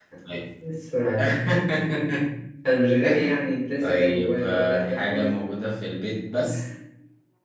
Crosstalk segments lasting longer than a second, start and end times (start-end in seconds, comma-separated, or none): 3.8-5.3